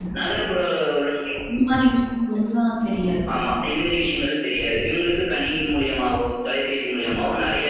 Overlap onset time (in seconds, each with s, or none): none